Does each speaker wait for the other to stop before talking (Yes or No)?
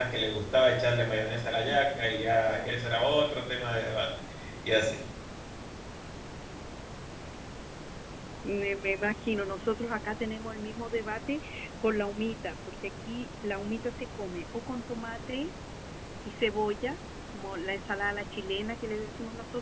Yes